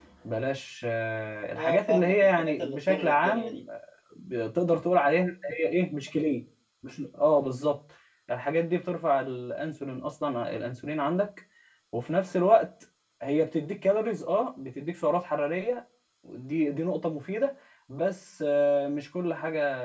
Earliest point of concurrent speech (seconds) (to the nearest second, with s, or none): 2 s